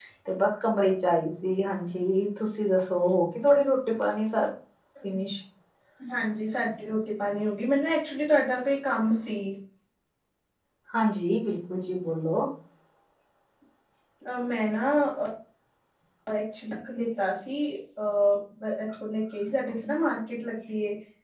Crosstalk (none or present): none